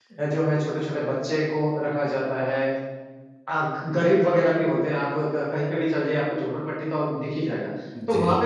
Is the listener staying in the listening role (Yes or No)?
Yes